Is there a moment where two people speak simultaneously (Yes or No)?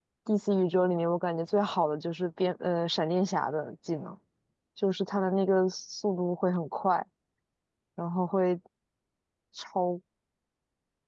No